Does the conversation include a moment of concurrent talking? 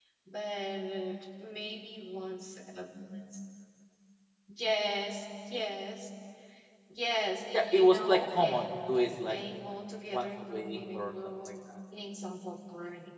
Yes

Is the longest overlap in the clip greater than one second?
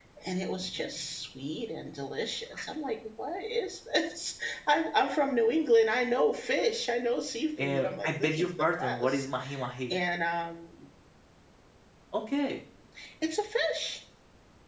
Yes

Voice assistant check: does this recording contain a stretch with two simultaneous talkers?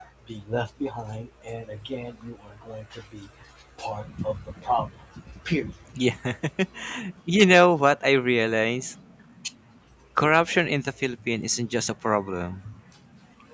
No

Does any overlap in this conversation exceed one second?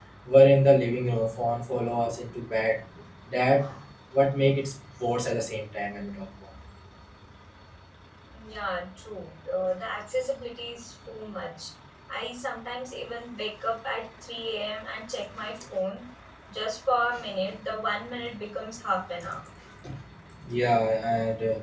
No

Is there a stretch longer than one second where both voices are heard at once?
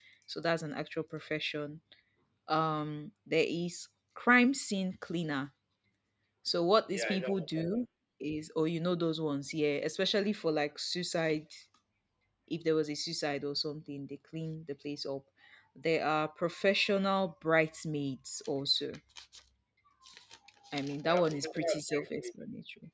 Yes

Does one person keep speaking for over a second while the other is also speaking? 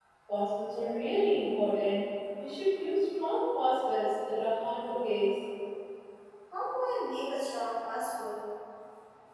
No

